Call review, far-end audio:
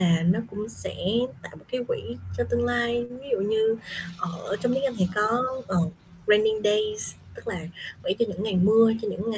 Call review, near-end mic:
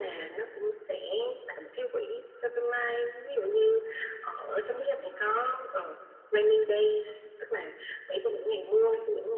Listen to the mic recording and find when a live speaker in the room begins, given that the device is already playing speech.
none

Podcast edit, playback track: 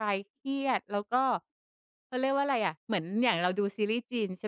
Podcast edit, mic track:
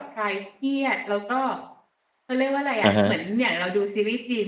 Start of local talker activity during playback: 3 s

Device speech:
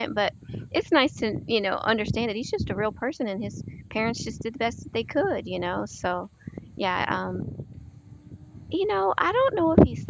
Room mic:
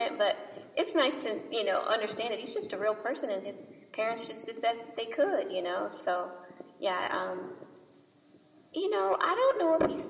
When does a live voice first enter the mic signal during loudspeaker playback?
none

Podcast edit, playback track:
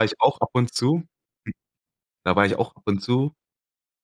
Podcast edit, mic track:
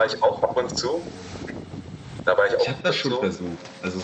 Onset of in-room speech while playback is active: 3 s

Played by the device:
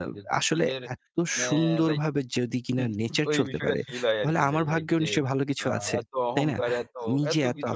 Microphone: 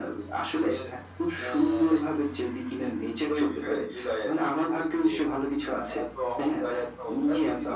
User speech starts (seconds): none

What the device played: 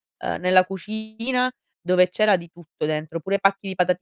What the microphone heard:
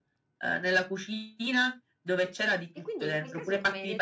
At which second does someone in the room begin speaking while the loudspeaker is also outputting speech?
3 s

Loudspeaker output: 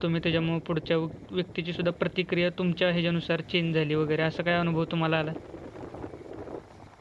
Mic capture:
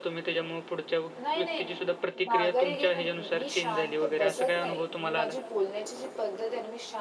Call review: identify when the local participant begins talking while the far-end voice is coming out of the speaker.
1 s

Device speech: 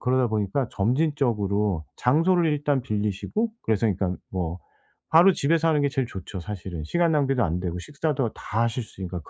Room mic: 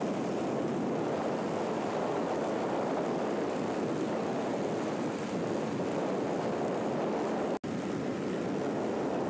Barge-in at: none

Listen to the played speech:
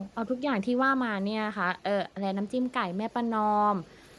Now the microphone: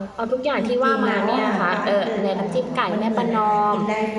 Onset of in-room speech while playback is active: 1 s

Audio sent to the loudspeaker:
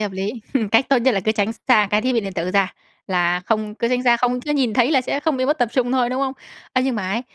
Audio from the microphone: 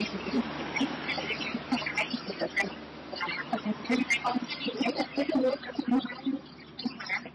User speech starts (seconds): none

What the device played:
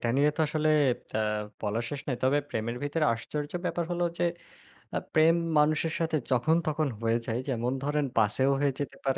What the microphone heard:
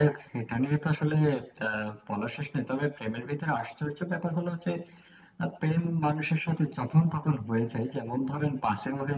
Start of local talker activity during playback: none

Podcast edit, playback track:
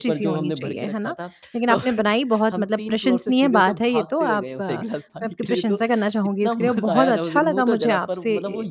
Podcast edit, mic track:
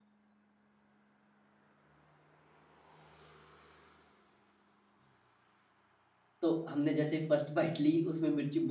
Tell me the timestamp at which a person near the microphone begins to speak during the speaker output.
6 s

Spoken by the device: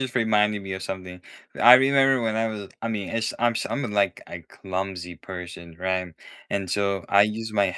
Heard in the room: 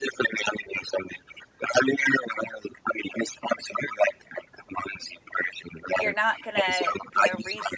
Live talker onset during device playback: 6 s

